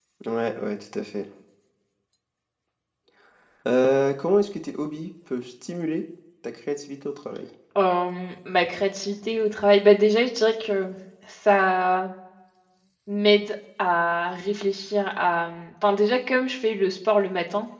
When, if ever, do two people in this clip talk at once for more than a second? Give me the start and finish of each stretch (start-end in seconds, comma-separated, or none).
none